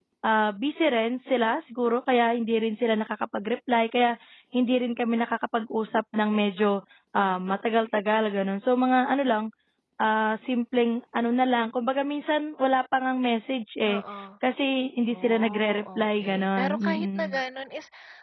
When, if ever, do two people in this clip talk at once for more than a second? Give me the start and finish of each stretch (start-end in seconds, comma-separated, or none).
15.1-17.4